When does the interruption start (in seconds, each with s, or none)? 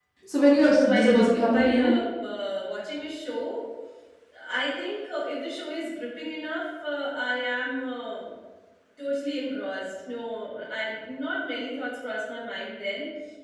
0.6 s